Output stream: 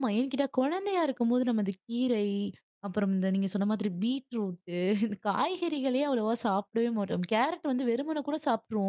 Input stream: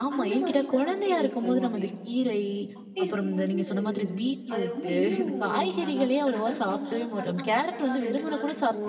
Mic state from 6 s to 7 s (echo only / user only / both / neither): both